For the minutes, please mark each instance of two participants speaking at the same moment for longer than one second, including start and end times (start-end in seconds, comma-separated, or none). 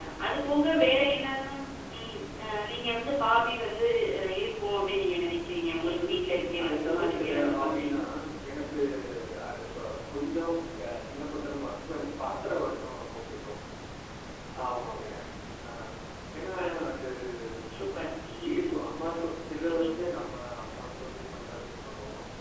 6.0-7.9